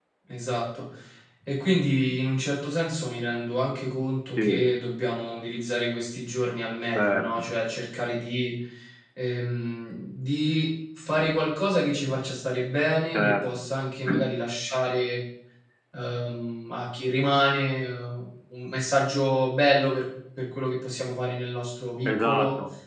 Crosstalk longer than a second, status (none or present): none